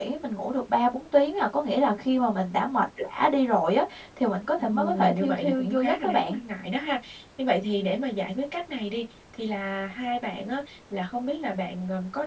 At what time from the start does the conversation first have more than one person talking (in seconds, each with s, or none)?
4.6 s